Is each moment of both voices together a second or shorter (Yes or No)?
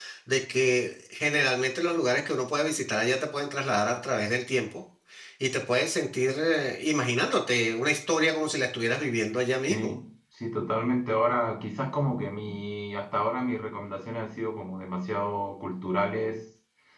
Yes